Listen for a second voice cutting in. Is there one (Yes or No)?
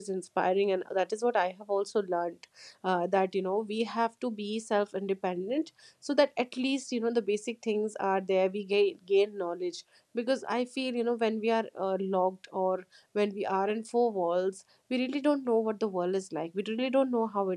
No